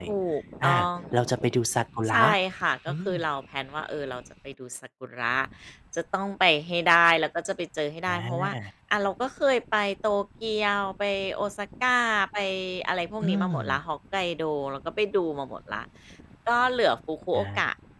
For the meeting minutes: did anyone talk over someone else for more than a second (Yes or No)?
No